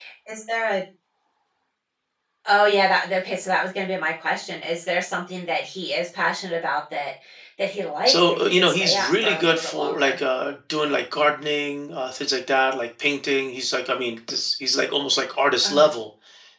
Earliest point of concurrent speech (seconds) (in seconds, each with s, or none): 8.1 s